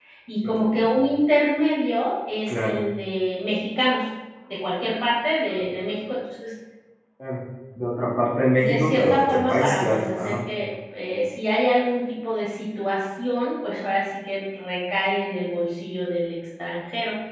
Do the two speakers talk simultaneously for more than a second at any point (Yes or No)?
Yes